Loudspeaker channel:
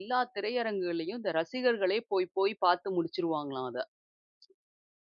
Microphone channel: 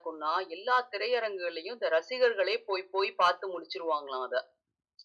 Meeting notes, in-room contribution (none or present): none